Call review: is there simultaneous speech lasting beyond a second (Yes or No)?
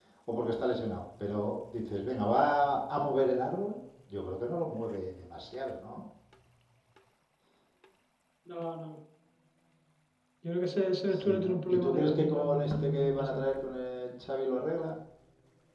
Yes